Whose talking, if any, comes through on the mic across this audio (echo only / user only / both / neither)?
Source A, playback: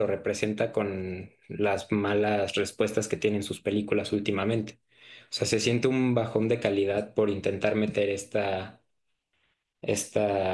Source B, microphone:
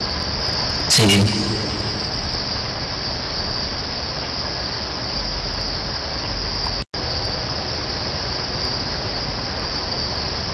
user only